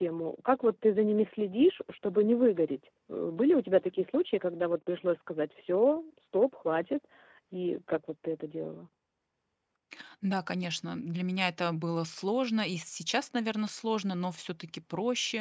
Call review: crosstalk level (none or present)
none